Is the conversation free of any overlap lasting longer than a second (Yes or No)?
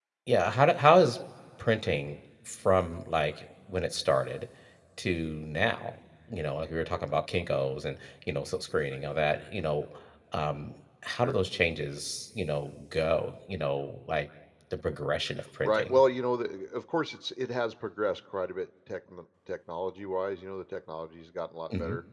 Yes